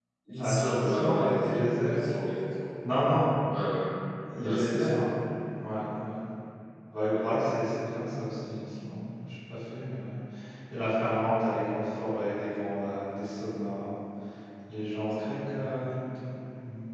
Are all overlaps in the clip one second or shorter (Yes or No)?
No